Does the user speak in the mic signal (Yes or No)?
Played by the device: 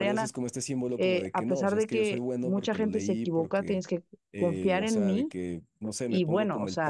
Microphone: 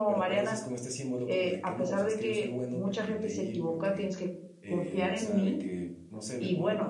No